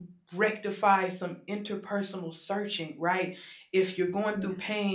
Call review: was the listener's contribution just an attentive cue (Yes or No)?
Yes